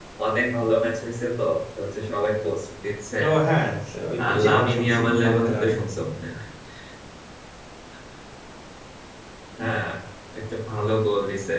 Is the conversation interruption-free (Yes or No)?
No